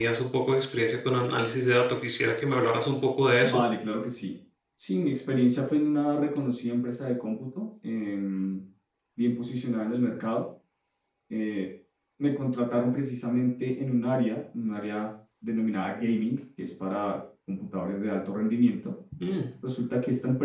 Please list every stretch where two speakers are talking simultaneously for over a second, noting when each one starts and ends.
none

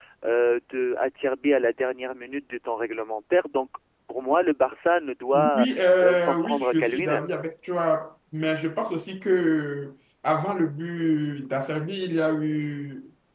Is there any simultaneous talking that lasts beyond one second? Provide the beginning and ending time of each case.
5.3-7.3

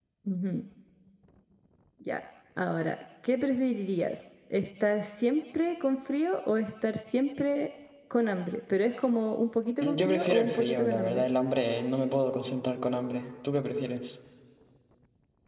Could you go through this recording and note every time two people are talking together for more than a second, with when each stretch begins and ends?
9.8-11.2

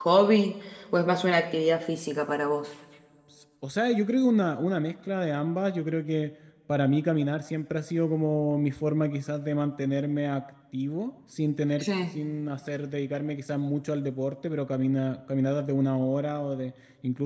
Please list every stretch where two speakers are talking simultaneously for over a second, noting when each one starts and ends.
none

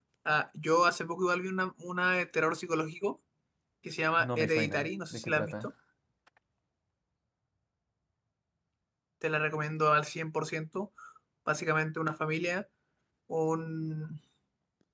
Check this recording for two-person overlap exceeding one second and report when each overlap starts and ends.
4.2-5.5

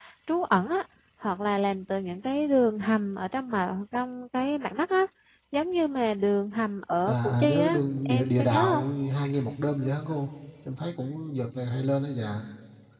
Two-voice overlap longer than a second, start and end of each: 7.1-8.8

